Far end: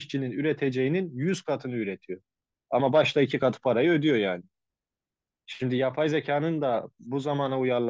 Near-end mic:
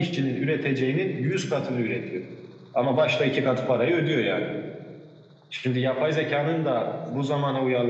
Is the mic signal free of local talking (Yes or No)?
Yes